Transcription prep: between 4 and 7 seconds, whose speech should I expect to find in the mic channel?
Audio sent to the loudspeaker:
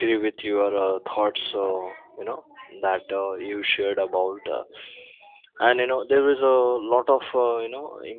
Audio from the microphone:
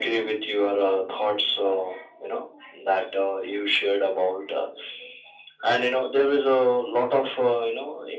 echo only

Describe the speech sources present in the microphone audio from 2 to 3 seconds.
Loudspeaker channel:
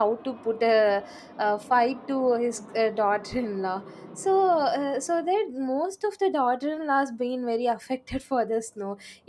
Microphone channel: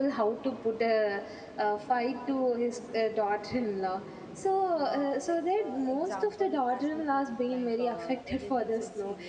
echo only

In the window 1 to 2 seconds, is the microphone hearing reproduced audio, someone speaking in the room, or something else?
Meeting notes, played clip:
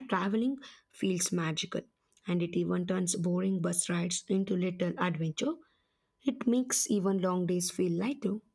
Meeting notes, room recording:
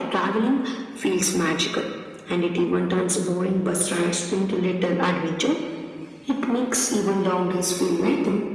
echo only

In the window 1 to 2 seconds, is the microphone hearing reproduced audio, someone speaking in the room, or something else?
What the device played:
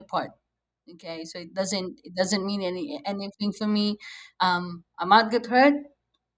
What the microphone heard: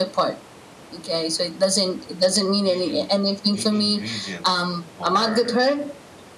echo only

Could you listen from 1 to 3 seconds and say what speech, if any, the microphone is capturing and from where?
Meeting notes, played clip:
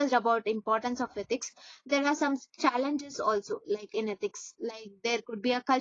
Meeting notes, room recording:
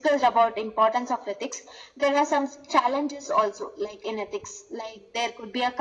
echo only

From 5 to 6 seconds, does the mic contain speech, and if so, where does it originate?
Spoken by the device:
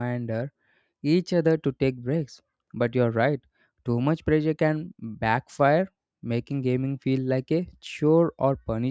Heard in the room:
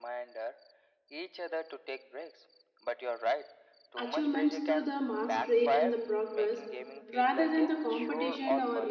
both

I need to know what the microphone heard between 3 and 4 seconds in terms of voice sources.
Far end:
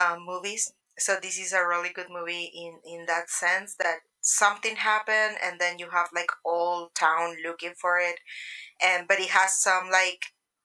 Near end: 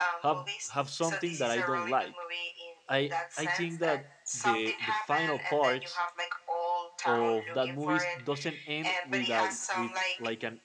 both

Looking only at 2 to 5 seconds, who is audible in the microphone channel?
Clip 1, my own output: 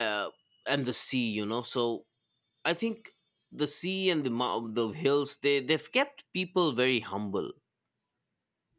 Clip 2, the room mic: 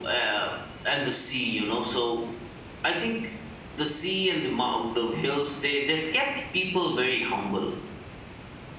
echo only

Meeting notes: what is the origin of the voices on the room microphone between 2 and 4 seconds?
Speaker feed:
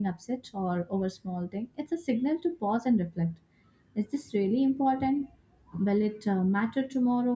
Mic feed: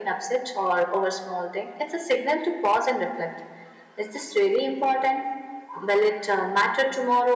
echo only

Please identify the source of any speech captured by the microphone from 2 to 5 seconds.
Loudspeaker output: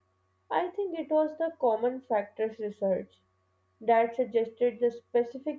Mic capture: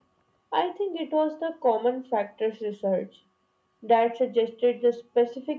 echo only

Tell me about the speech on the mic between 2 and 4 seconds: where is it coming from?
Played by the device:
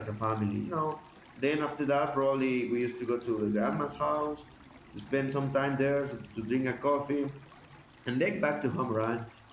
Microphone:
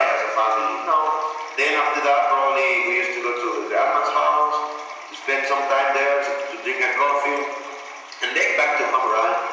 echo only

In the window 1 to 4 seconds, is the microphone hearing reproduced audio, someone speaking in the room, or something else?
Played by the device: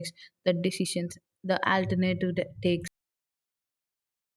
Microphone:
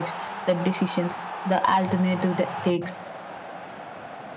echo only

